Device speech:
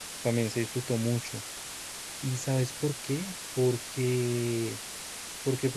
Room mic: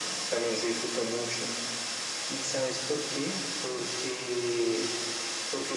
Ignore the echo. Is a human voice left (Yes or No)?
No